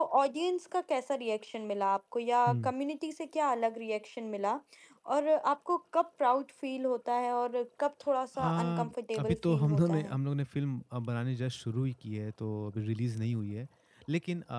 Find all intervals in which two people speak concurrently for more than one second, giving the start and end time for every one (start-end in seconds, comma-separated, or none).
8.4-10.2